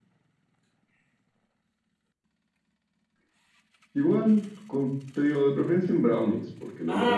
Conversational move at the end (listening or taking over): taking over